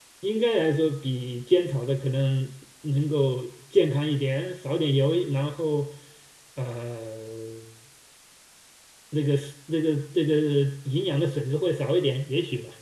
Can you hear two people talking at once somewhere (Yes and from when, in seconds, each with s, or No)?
No